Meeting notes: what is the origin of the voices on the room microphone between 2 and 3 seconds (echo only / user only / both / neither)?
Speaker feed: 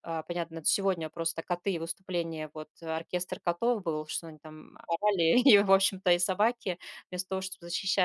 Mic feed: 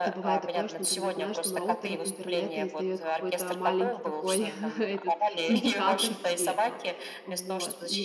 both